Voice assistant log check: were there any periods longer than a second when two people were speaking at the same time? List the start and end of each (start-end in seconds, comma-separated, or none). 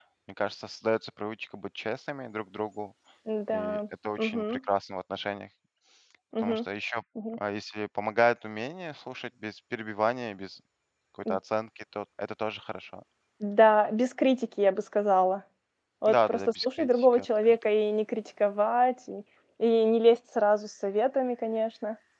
16.1-17.6